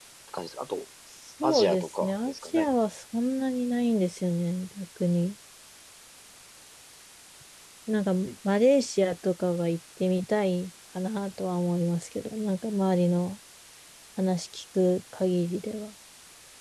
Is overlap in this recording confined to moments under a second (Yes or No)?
No